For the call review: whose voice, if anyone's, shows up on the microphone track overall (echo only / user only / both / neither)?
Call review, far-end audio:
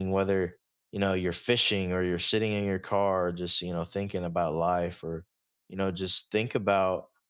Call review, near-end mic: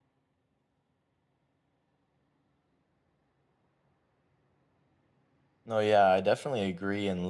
user only